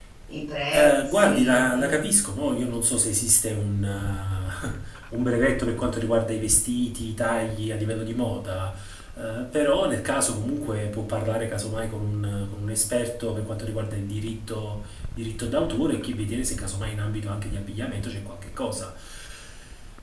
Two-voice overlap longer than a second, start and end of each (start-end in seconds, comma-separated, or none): 0.7-2.0